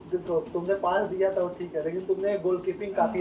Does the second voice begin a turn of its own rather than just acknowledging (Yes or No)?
No